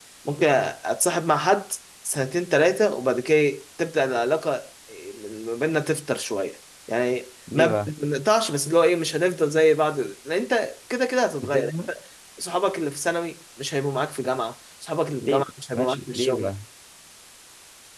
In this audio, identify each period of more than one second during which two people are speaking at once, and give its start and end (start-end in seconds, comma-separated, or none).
15.2-16.5